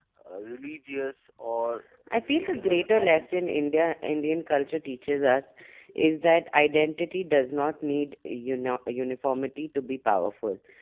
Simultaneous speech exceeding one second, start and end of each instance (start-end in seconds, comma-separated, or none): 2.2-3.6